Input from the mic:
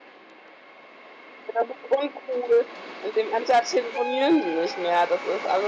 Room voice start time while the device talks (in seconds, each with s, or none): 1.5 s